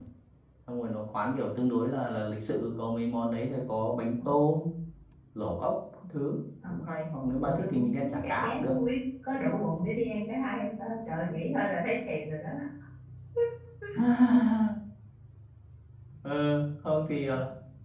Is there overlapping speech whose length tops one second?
Yes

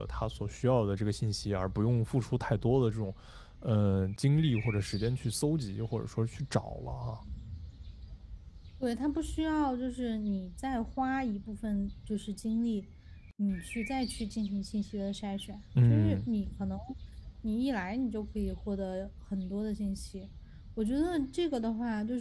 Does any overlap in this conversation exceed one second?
No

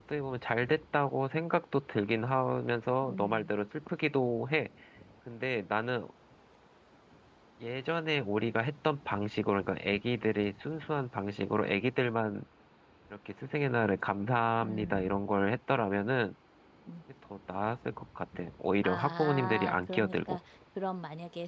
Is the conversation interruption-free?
No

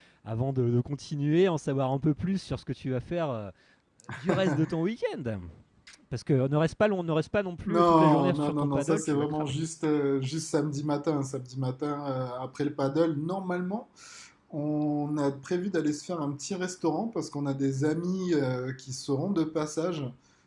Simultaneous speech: Yes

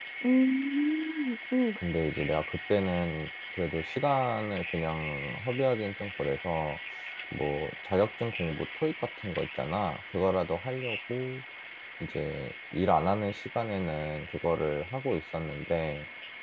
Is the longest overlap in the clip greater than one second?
No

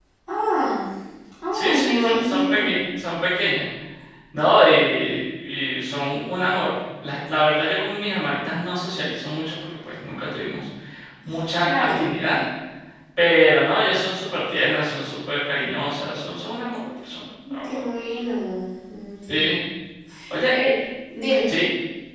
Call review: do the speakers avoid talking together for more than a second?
No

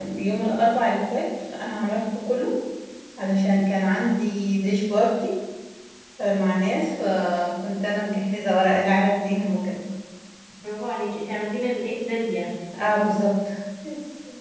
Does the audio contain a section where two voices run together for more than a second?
No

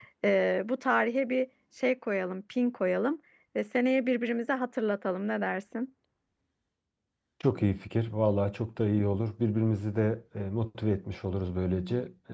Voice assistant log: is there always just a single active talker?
Yes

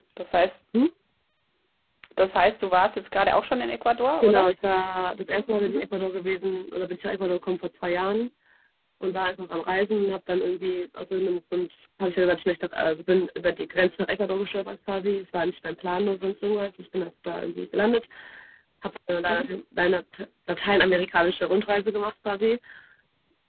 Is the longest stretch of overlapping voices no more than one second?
Yes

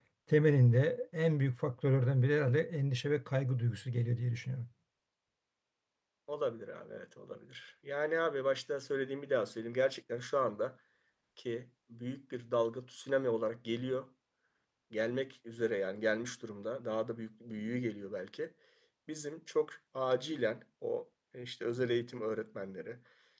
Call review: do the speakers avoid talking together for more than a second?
Yes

